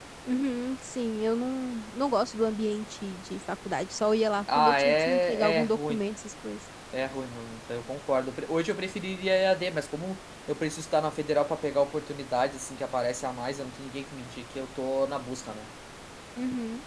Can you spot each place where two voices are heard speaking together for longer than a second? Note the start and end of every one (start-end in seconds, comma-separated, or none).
4.5-6.0